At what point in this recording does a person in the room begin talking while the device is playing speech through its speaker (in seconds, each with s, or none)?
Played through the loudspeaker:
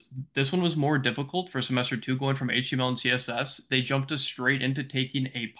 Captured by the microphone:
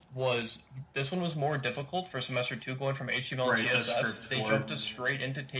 3.4 s